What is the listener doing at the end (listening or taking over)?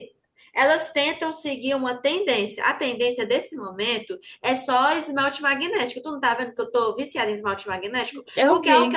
listening